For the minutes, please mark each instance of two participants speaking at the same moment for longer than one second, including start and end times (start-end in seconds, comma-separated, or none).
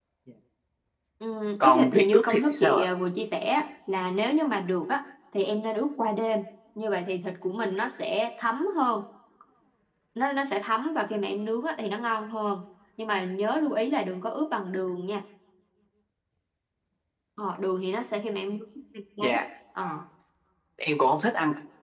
1.6-2.8